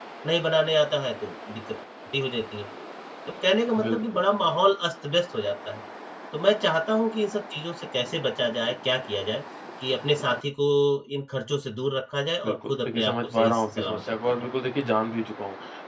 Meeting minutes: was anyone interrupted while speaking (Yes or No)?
Yes